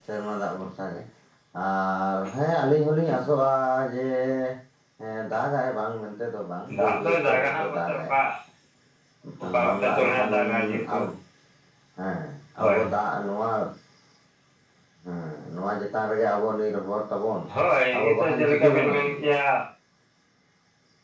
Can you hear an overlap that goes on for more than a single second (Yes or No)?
Yes